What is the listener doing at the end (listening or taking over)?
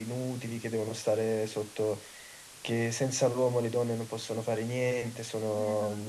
listening